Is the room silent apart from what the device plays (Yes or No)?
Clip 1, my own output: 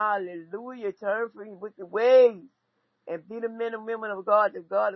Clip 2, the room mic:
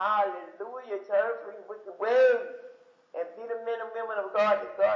Yes